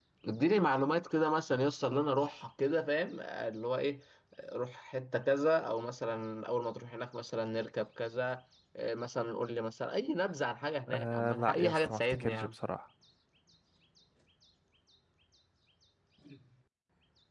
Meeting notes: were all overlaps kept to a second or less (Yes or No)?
No